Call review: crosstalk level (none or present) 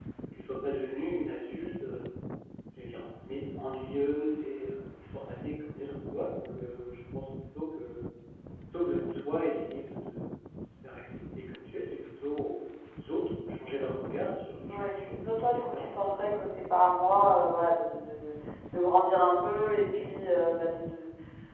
present